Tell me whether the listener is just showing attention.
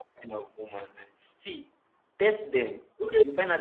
No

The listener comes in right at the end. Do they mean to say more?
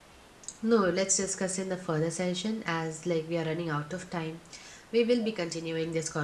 No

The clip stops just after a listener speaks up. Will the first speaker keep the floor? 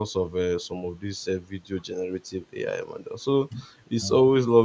Yes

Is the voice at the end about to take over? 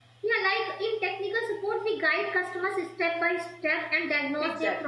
No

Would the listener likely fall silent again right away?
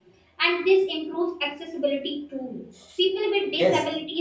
Yes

